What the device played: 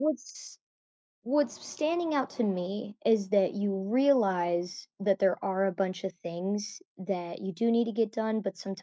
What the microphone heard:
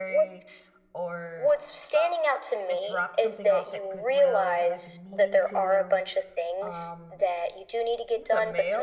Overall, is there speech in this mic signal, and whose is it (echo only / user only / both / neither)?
both